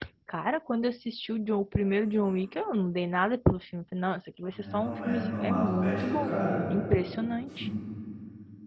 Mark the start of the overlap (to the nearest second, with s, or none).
5 s